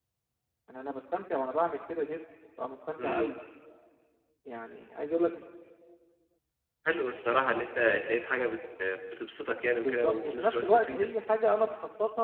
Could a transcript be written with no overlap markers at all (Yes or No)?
No